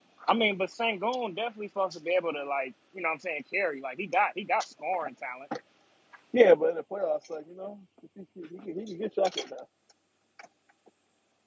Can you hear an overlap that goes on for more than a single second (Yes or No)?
No